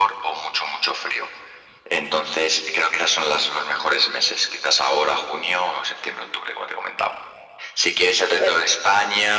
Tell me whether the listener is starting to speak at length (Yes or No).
No